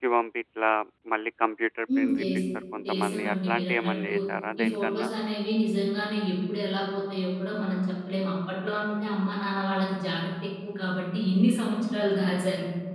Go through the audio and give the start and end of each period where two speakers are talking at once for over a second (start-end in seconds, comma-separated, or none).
2.9-4.1